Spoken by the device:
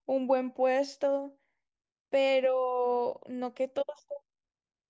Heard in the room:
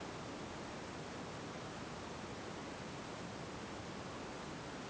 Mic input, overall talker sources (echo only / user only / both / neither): neither